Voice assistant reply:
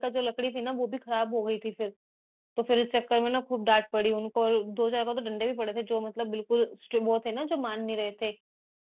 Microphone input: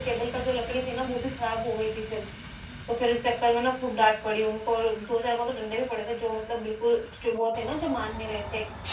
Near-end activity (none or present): none